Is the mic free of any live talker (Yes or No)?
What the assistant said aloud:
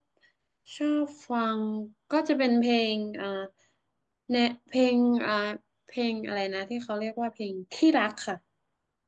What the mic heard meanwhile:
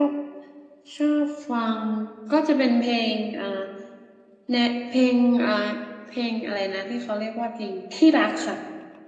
Yes